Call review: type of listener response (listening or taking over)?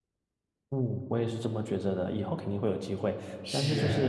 listening